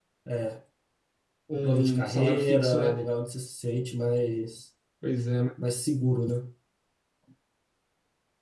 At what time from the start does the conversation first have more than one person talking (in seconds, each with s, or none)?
1.6 s